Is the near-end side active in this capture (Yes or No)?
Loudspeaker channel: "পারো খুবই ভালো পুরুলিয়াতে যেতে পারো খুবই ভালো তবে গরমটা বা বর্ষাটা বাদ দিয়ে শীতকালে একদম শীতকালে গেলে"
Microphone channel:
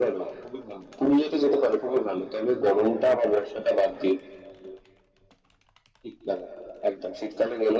No